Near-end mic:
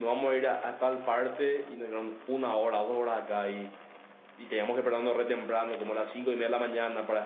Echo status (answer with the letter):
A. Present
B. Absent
B